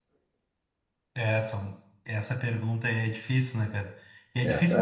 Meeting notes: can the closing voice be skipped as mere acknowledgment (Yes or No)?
Yes